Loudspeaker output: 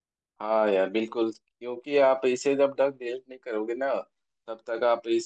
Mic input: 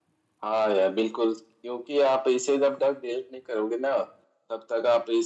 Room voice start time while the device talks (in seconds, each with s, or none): none